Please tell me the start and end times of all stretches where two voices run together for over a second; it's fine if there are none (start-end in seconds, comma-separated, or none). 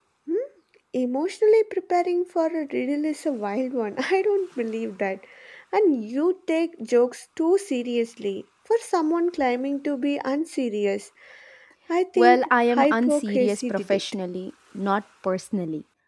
12.2-14.0